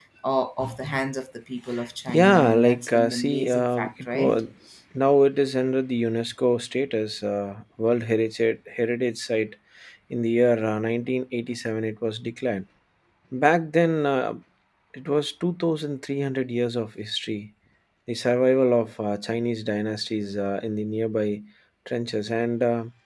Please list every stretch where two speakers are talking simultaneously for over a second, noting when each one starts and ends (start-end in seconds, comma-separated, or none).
2.1-4.4